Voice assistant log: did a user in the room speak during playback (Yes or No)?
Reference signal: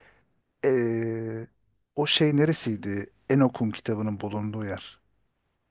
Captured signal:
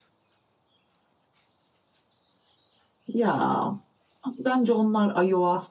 Yes